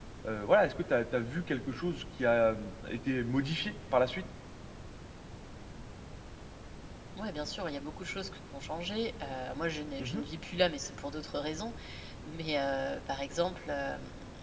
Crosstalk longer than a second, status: none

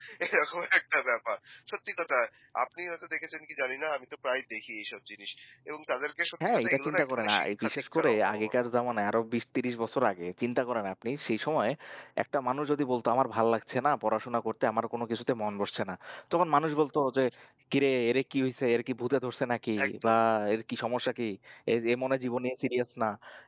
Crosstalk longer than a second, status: present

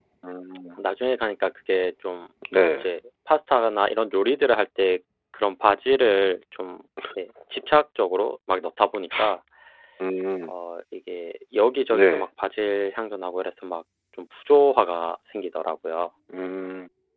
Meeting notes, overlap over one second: none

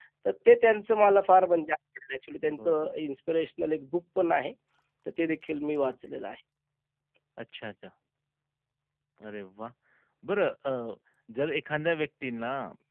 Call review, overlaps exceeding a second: none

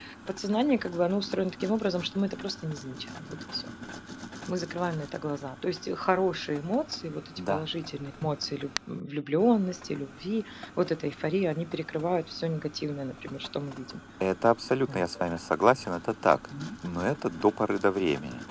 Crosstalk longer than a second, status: none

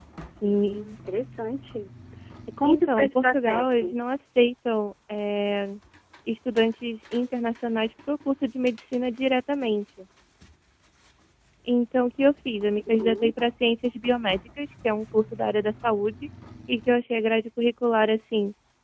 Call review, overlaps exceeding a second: present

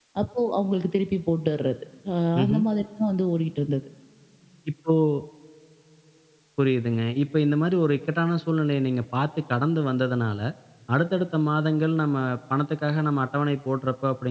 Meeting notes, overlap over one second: none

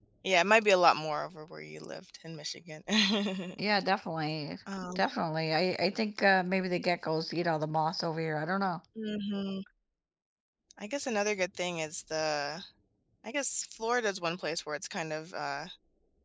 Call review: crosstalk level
none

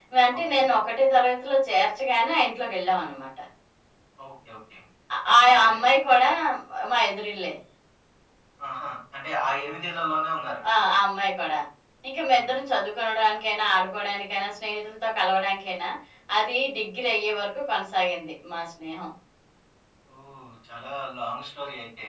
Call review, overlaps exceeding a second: none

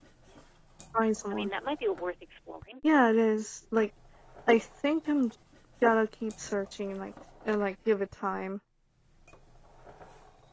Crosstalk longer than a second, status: none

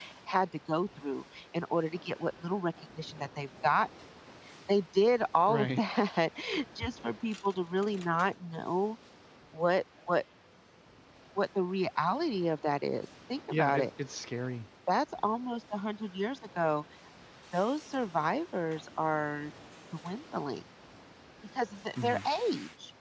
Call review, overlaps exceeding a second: none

